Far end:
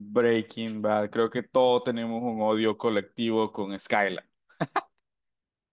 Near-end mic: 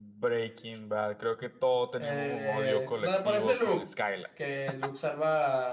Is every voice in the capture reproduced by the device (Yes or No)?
No